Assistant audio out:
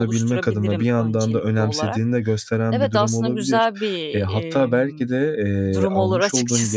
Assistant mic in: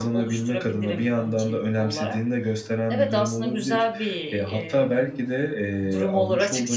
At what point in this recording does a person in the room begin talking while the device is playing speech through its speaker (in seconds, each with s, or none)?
none